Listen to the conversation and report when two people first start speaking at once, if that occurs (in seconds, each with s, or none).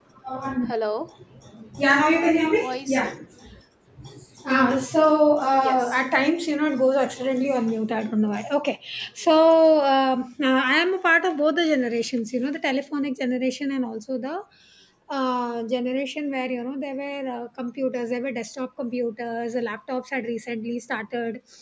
1.9 s